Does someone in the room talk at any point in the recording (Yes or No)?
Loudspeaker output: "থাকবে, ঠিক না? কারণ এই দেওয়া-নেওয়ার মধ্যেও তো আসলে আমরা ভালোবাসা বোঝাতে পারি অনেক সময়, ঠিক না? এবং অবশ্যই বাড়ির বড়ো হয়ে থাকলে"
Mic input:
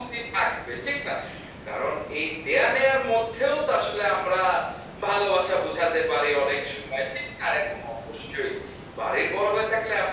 No